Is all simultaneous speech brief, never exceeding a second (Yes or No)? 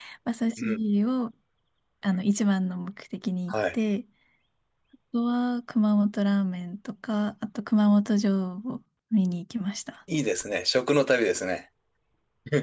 Yes